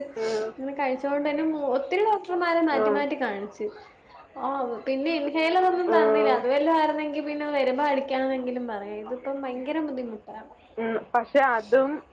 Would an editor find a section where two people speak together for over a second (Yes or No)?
No